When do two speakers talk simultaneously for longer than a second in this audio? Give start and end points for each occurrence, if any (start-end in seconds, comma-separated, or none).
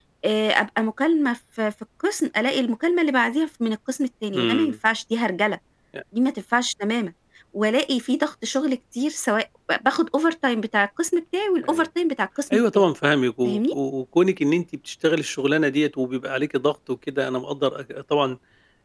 none